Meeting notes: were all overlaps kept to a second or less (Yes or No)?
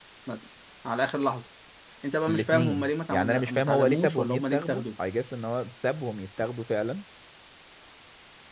No